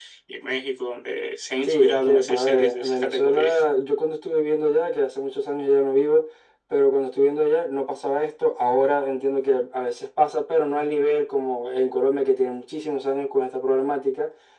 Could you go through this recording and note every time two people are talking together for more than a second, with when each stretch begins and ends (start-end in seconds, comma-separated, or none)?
1.6-3.5